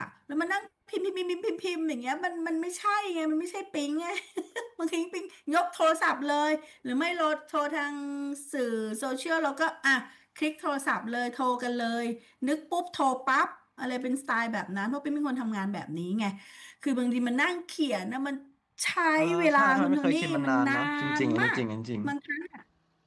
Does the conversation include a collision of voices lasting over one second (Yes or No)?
Yes